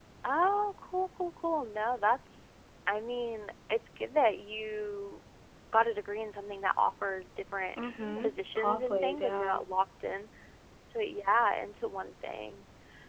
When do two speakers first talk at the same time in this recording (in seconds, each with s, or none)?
8.2 s